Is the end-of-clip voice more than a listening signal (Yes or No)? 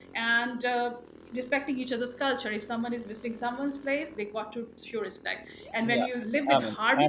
Yes